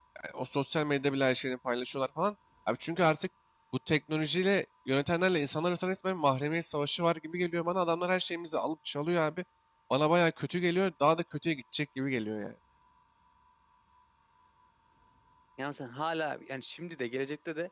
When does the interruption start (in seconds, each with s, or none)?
none